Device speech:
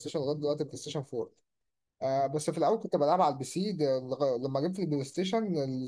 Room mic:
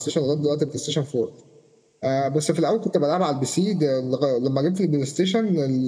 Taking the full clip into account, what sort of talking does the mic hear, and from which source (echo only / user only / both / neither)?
echo only